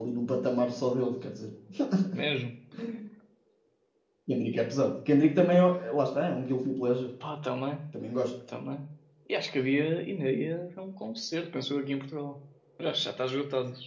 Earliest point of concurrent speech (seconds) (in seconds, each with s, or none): none